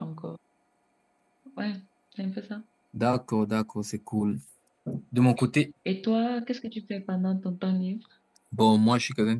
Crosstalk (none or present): none